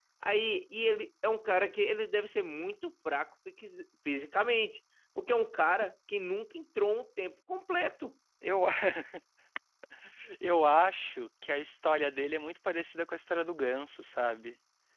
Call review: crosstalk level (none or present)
none